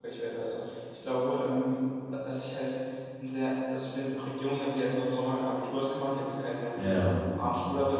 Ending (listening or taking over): listening